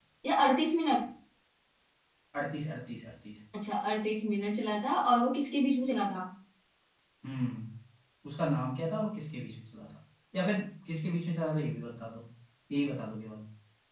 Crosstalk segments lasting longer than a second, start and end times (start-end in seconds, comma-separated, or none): none